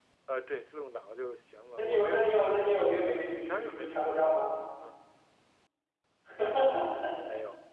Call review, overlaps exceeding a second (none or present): present